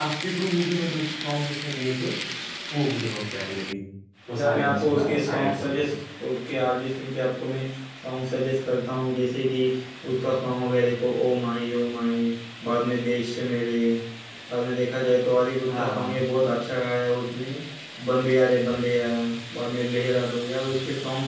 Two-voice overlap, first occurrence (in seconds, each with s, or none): 4.4 s